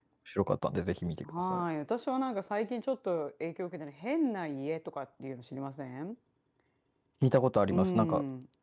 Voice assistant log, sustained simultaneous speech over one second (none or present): none